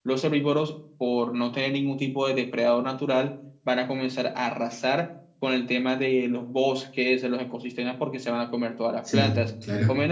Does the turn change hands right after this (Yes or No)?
No